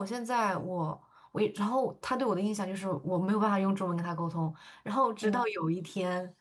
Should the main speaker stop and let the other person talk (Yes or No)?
No